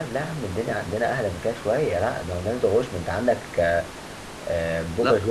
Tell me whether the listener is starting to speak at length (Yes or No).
No